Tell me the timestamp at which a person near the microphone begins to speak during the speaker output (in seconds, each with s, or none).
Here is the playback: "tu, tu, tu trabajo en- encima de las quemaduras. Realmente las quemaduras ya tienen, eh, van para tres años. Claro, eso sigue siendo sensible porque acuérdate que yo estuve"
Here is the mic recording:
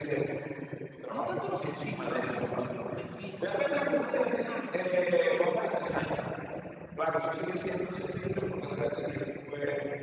1.1 s